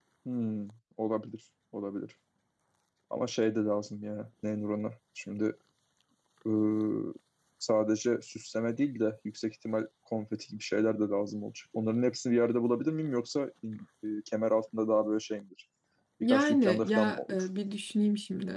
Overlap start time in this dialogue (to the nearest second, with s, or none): 16 s